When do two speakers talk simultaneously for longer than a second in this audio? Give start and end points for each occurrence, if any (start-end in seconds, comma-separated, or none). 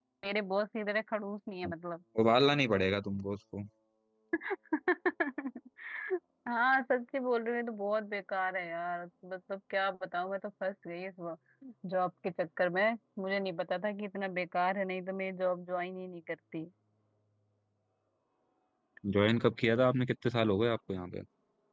none